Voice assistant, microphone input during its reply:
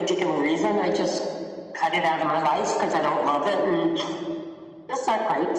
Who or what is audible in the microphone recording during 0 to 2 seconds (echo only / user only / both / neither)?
echo only